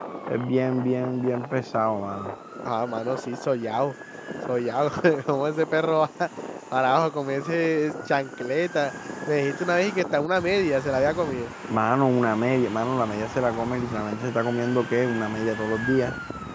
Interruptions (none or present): none